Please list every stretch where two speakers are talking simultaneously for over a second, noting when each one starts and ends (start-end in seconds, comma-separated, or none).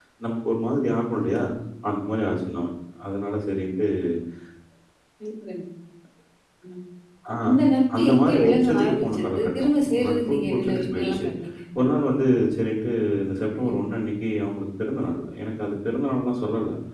8.0-11.2